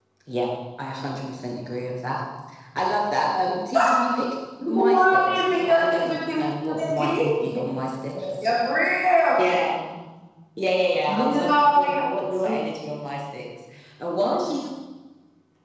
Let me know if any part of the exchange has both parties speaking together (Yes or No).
Yes